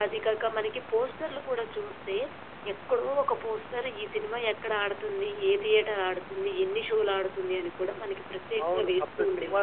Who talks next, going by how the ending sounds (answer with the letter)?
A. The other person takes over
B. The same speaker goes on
A